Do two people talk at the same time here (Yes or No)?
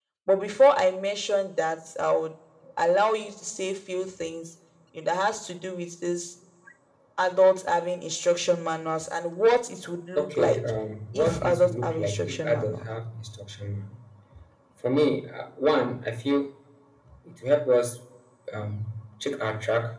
Yes